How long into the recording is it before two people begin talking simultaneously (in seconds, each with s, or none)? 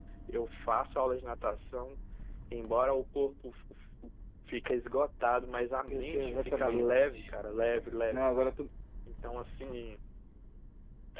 5.9 s